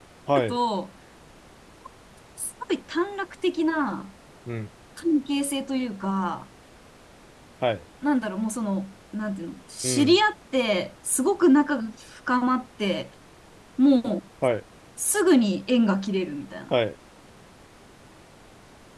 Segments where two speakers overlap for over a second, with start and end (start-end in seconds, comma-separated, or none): none